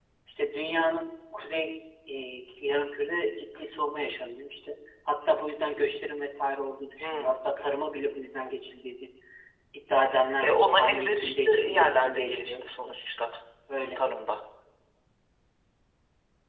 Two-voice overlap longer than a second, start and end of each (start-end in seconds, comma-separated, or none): 10.4-12.9